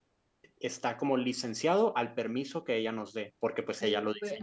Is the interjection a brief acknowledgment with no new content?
No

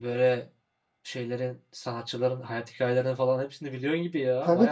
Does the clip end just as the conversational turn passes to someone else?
Yes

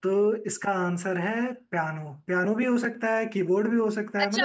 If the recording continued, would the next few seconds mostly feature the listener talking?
Yes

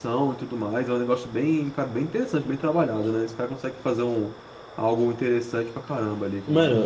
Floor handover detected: Yes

